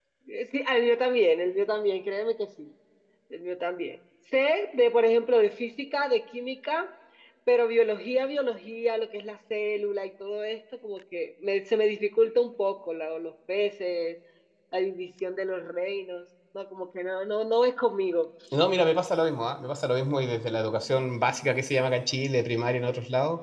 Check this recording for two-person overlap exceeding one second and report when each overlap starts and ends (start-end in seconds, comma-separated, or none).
none